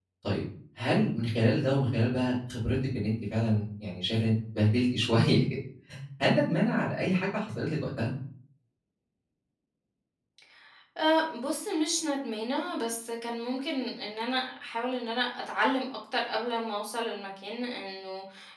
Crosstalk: none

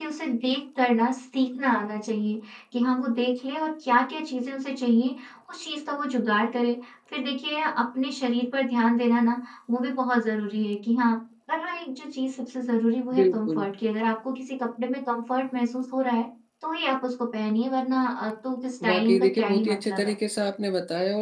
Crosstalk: present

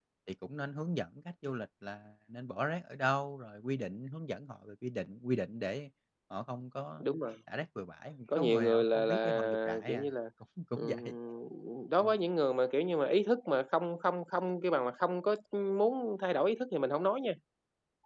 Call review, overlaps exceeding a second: present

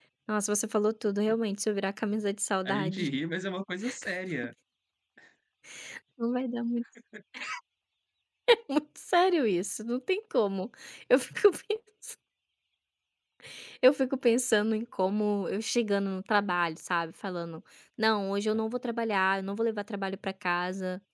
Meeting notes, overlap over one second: none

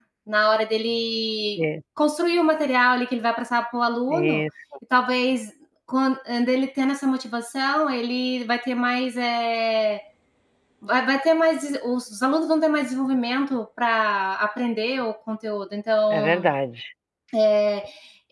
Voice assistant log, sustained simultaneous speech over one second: none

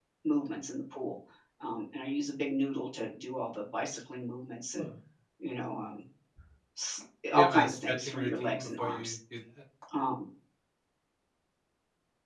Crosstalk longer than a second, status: present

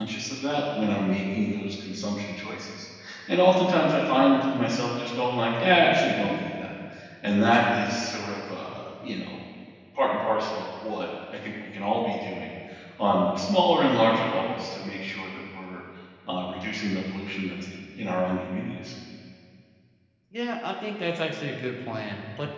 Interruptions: none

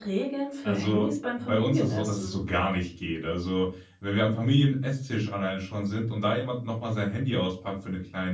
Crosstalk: present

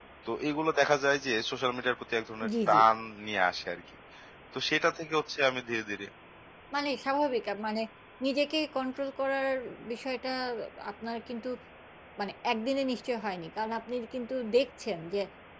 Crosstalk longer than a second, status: none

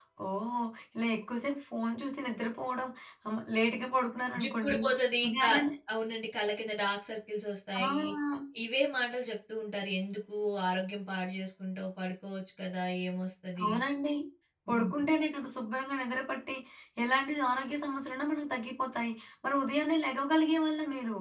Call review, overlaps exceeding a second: none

